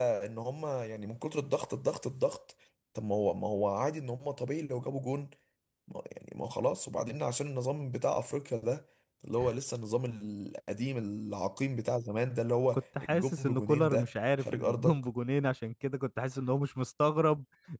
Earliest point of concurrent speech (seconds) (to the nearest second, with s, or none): 13 s